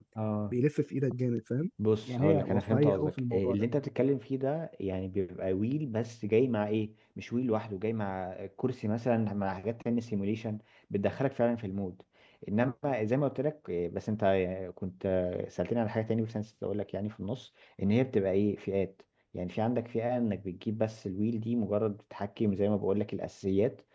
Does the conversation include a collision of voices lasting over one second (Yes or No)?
Yes